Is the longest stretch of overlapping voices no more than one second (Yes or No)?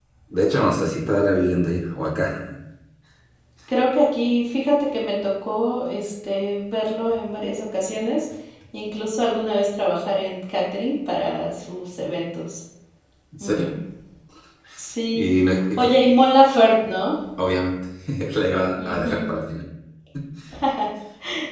Yes